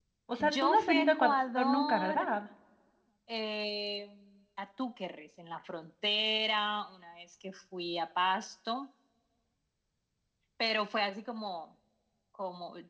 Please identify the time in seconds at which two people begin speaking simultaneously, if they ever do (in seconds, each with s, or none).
0.6 s